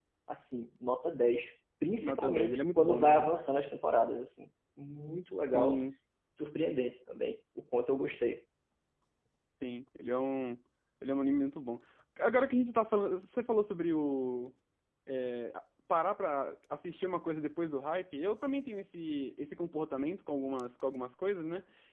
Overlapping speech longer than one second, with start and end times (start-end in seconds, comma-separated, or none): 2.0-3.3